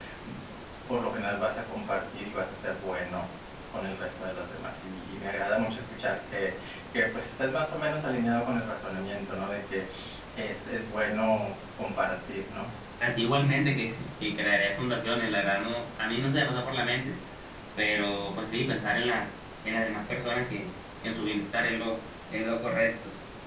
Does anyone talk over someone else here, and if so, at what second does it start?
none

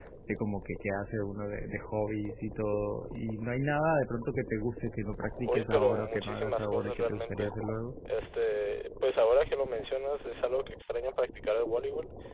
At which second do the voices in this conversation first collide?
5 s

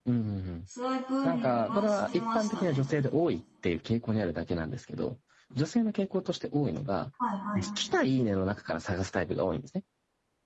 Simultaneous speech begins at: 1 s

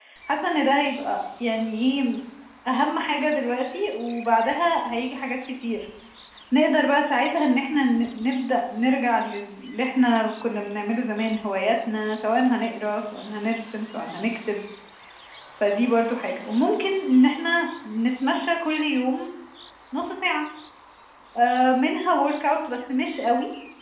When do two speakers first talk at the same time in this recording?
none

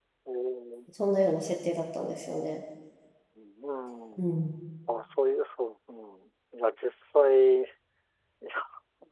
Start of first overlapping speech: none

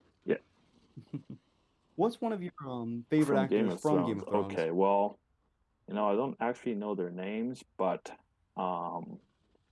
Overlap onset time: 3 s

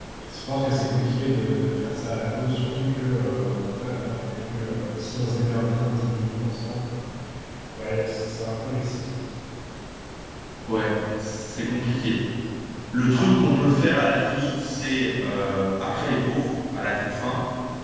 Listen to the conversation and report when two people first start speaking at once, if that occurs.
none

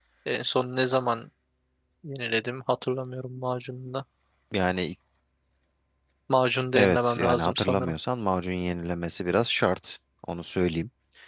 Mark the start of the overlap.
7 s

